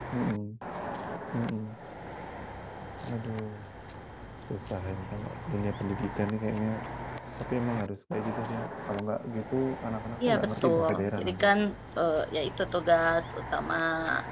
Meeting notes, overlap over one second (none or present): present